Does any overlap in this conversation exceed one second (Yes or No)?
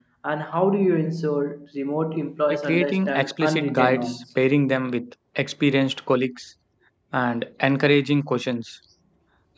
Yes